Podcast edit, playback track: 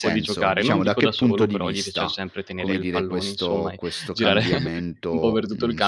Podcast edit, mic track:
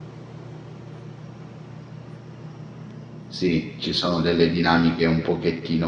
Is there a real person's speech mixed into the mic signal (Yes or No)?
Yes